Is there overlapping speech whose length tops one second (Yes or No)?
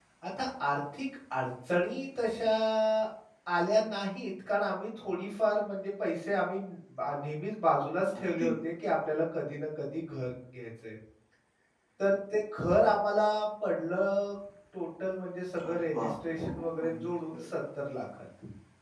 Yes